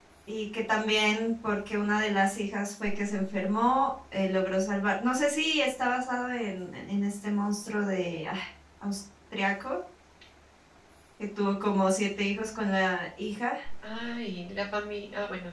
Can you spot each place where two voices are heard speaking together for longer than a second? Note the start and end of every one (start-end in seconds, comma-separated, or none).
none